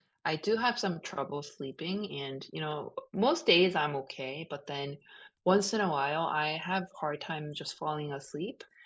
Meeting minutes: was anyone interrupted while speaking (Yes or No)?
No